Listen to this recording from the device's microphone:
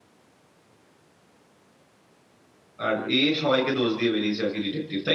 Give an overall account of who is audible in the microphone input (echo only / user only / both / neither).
user only